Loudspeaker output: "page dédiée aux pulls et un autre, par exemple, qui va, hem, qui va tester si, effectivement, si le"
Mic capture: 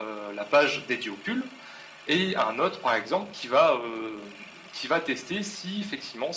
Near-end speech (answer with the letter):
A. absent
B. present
A